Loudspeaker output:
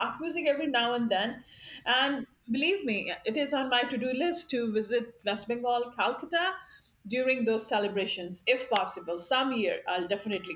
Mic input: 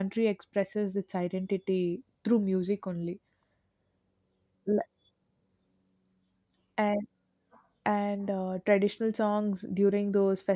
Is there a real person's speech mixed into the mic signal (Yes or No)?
Yes